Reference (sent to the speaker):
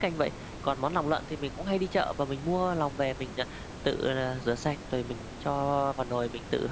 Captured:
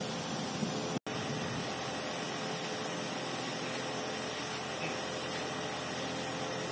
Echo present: No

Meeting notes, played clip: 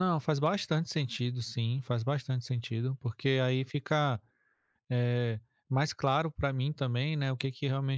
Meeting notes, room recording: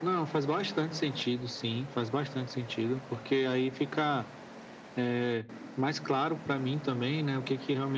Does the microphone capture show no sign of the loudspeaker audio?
No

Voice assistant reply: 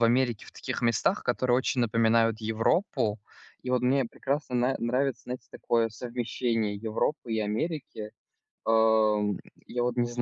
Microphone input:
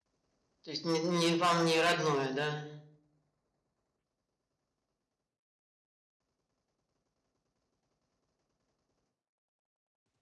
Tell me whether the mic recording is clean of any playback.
Yes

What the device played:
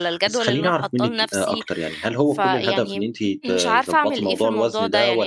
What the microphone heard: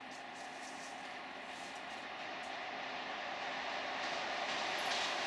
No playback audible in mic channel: Yes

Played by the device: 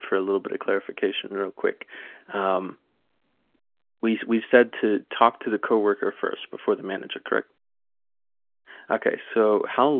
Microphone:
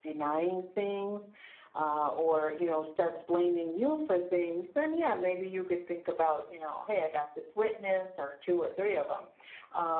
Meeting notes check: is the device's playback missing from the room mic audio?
Yes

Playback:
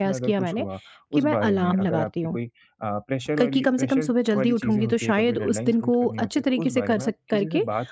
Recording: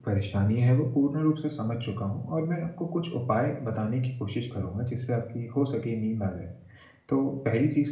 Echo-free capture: Yes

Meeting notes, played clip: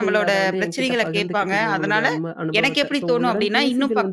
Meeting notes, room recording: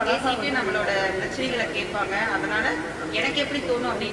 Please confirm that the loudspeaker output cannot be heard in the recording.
No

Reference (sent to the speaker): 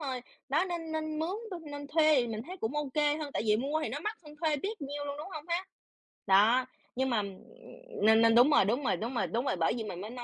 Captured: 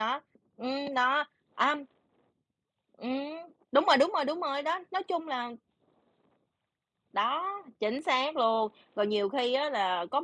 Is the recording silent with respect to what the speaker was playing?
Yes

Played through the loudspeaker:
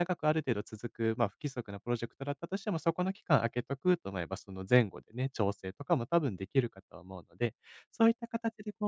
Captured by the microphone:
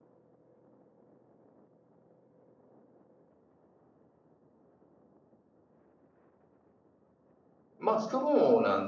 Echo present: No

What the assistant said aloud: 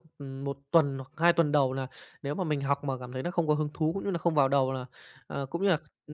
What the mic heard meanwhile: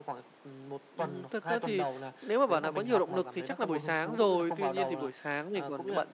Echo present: Yes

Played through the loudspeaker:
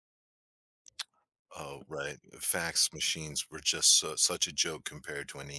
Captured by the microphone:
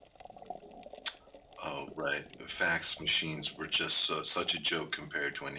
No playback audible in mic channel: No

